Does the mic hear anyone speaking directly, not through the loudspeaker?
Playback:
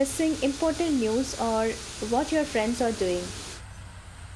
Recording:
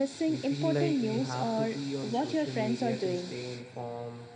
Yes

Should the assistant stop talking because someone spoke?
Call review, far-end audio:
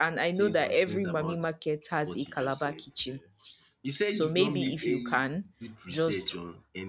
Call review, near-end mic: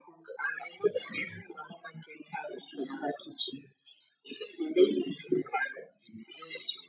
No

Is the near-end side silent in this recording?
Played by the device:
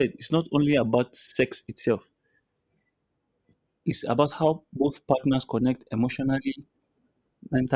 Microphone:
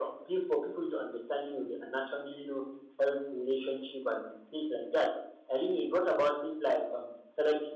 No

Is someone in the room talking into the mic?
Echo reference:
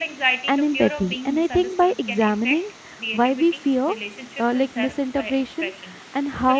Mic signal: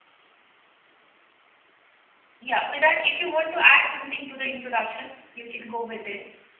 Yes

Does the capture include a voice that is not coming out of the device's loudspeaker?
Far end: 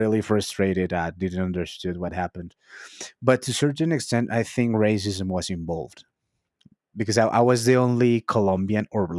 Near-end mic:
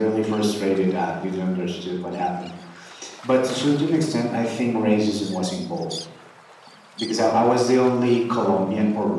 No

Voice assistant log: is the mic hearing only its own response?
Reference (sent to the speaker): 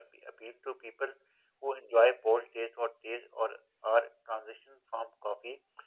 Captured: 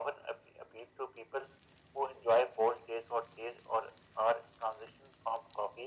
Yes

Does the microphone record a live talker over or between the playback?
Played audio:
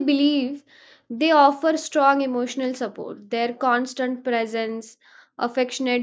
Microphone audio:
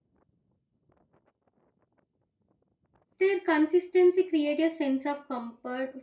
Yes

